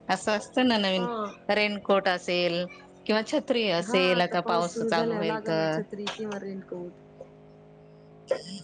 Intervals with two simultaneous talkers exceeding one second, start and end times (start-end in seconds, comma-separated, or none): 3.9-5.8